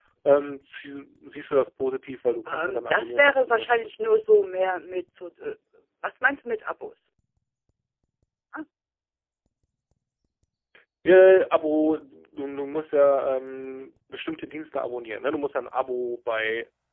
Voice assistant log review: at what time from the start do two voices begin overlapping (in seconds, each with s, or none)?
2.5 s